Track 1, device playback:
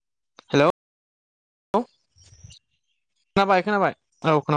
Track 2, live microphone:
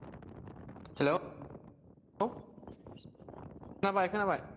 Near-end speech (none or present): none